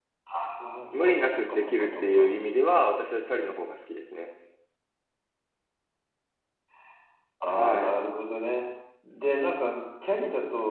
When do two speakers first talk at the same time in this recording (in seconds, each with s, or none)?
0.9 s